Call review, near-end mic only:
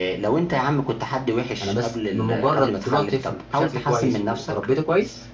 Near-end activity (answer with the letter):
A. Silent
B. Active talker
B